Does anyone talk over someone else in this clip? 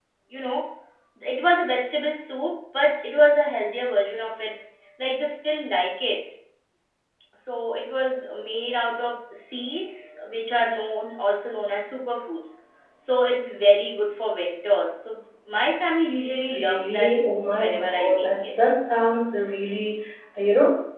Yes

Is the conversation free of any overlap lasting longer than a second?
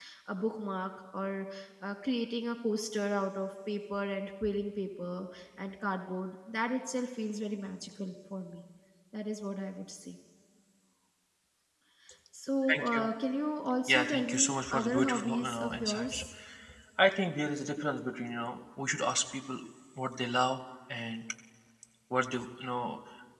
No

